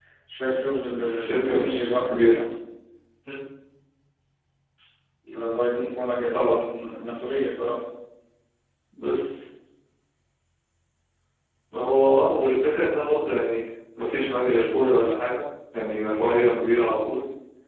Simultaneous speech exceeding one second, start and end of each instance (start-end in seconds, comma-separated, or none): 0.9-2.4